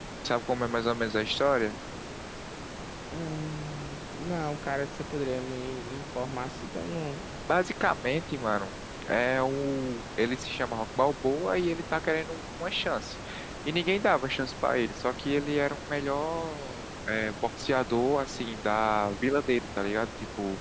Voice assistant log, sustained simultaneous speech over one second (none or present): none